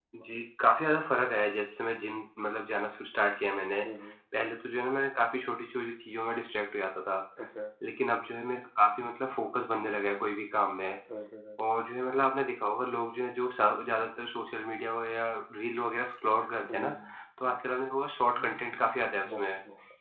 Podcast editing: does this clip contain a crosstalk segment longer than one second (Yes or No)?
No